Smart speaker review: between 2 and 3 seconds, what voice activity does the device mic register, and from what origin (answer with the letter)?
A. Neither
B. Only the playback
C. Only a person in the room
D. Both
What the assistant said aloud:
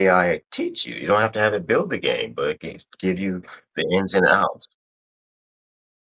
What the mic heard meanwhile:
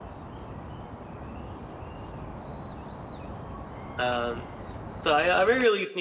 A